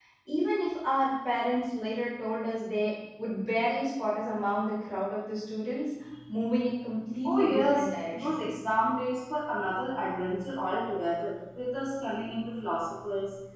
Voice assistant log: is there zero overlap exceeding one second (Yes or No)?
No